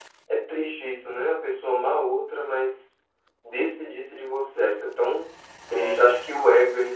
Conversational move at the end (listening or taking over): listening